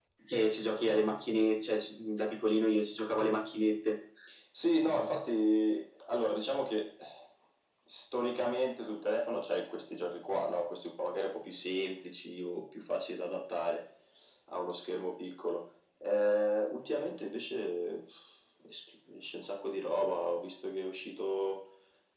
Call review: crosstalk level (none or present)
none